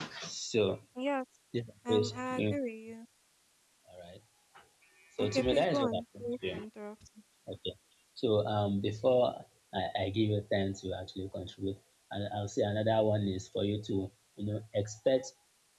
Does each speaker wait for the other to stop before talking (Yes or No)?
No